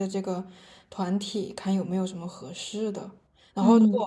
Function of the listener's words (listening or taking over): listening